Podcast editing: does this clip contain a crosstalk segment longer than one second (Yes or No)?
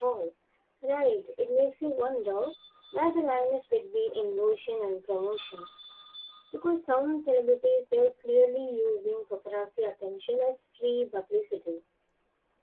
No